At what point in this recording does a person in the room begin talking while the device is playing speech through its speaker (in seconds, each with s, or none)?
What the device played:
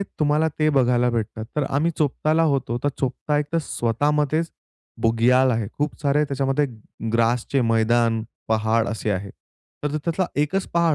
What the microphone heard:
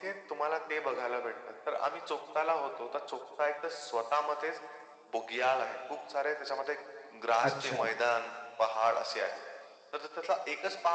7.4 s